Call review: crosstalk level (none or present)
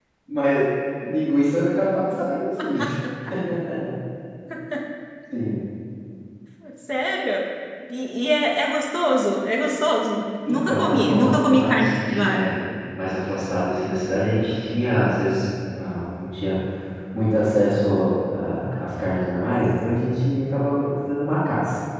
present